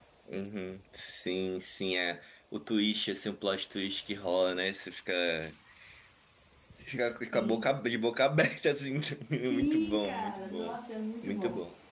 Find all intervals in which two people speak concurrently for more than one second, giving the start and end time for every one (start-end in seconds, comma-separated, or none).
9.5-10.8